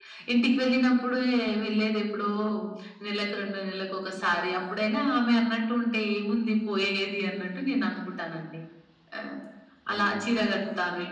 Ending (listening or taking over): listening